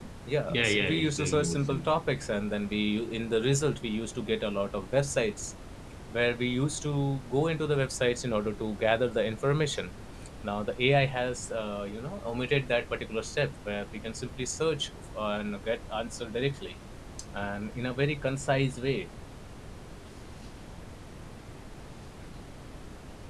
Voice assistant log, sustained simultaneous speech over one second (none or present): present